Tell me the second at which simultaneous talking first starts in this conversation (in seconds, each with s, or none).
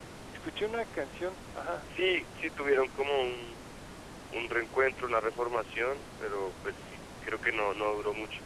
none